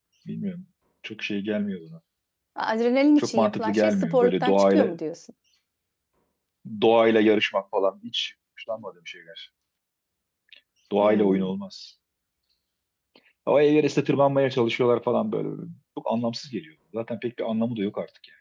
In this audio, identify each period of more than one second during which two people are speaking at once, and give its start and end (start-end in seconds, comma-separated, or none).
3.2-4.9